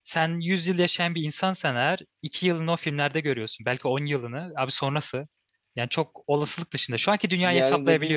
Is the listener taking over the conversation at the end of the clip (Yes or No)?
Yes